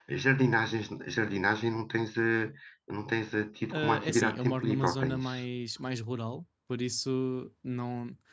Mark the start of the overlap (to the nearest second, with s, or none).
4 s